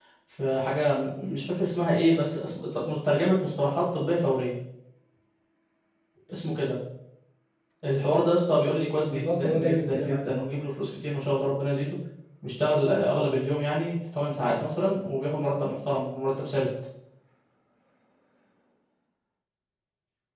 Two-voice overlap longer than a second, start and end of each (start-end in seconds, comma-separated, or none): 9.1-10.3